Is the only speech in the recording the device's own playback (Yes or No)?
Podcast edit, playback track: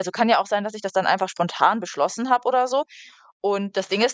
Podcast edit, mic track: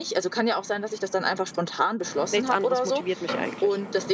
No